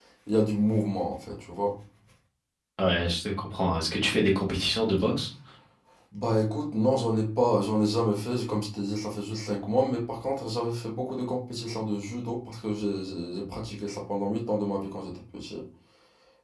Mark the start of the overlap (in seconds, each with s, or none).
none